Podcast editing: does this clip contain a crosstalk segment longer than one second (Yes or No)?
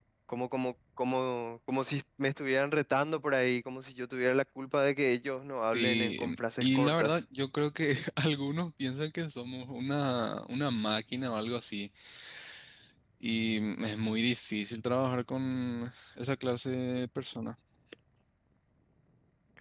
Yes